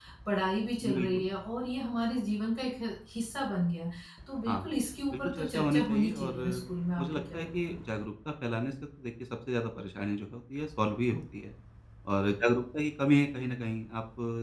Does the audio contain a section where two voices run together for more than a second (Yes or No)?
Yes